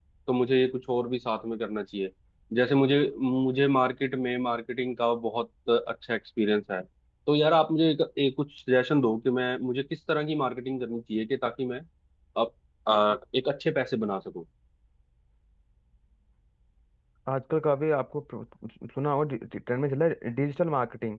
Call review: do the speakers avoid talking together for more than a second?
Yes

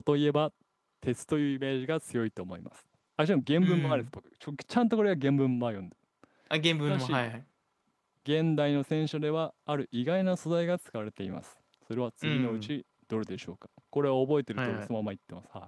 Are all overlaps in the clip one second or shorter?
Yes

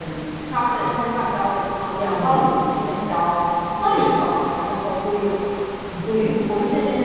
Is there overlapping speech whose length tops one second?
No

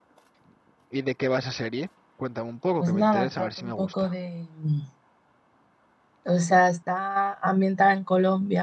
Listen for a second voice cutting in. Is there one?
Yes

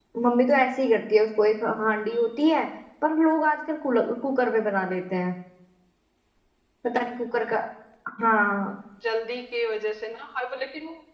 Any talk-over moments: No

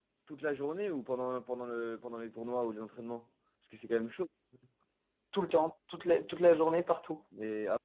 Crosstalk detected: No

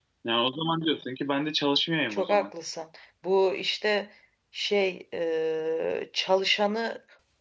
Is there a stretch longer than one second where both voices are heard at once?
No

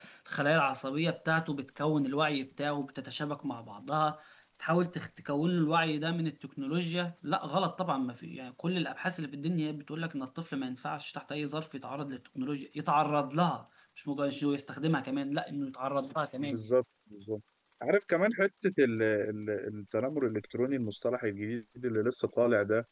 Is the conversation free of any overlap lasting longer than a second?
Yes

